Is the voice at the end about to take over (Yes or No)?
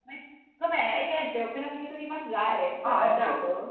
Yes